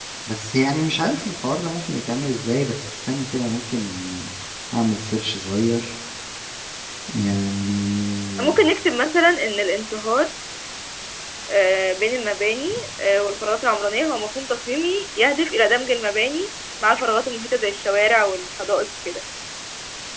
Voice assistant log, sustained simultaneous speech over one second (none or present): none